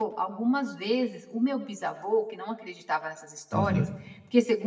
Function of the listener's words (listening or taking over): listening